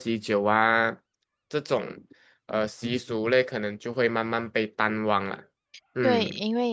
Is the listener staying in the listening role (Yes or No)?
No